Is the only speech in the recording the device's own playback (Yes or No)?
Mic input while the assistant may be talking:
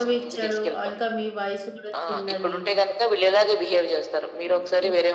No